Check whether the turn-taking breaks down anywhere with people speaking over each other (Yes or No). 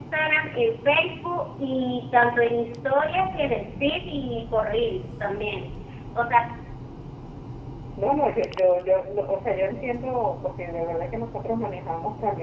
No